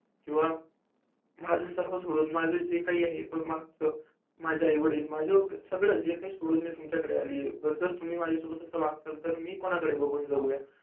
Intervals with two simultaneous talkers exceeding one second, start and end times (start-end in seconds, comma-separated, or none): none